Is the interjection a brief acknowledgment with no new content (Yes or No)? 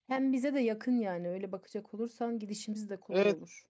No